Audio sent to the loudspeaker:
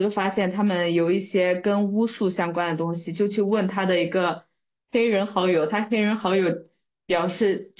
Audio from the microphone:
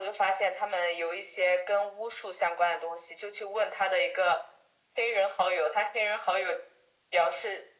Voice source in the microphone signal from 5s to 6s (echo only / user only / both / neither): echo only